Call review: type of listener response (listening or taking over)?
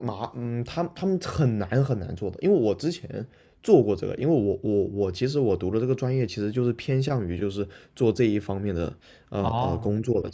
taking over